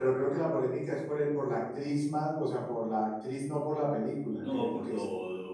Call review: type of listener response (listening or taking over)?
taking over